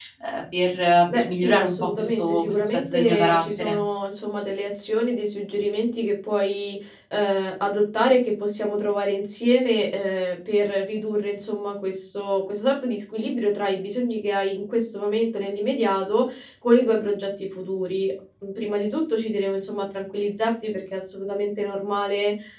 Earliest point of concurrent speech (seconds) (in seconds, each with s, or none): 1.1 s